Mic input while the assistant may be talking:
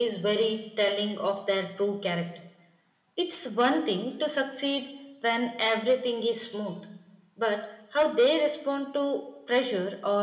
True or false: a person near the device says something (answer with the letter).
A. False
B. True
A